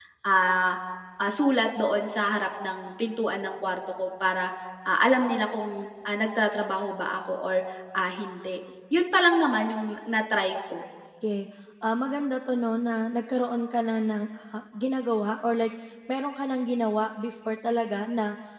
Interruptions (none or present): none